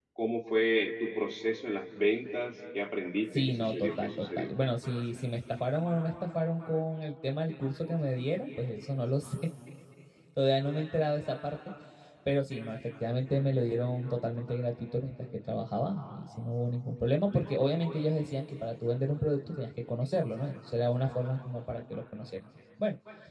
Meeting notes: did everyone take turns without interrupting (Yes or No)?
No